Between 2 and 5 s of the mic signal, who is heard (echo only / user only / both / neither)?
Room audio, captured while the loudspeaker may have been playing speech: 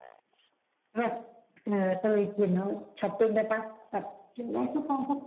echo only